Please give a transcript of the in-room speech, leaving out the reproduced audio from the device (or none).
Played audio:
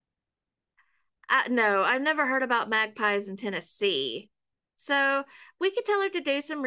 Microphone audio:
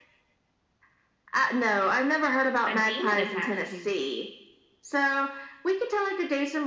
a demon attached to it.